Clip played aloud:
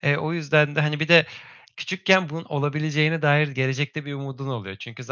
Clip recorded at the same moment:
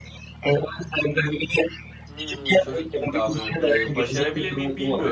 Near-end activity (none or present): present